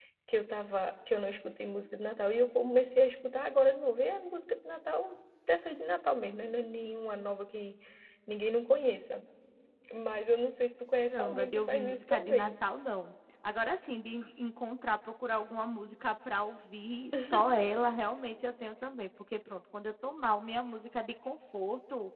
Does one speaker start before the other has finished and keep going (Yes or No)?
Yes